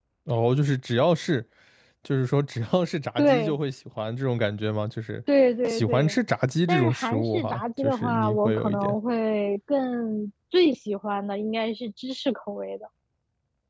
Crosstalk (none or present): present